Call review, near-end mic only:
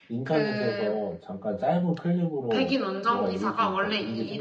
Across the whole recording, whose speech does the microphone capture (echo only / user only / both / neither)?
both